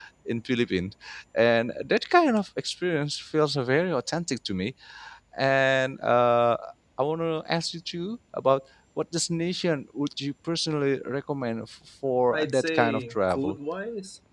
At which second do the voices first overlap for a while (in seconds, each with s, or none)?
12.3 s